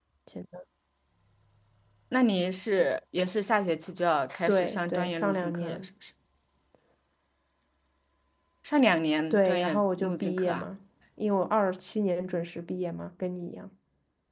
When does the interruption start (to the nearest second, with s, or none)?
4 s